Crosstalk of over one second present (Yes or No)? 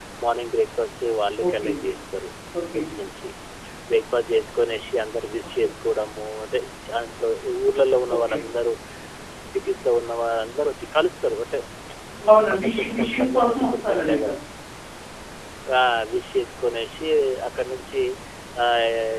Yes